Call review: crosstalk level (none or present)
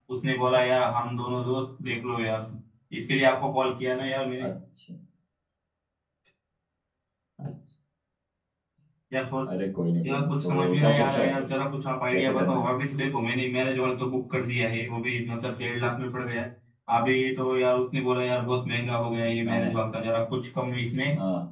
present